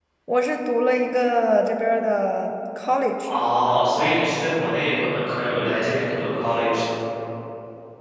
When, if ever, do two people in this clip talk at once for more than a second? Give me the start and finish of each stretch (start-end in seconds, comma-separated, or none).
none